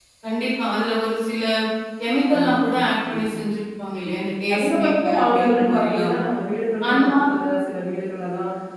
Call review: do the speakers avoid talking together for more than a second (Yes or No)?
No